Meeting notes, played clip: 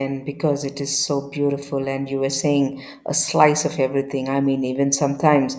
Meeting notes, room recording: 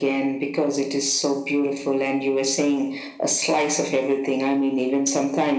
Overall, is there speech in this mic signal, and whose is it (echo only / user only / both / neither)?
echo only